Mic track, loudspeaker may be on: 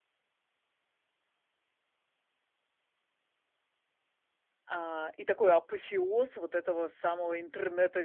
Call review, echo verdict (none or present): none